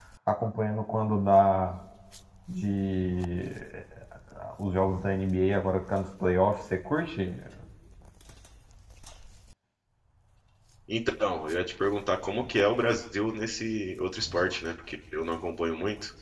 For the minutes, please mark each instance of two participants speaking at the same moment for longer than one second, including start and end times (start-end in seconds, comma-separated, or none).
none